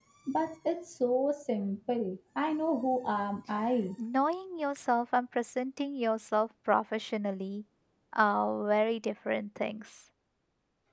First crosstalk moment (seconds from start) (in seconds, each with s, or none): none